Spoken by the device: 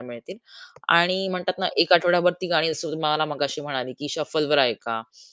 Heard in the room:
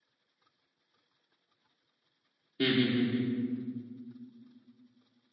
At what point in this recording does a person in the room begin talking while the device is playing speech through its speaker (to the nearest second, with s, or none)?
3 s